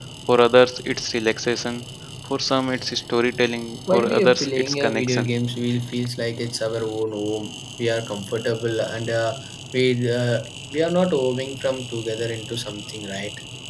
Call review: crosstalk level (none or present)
present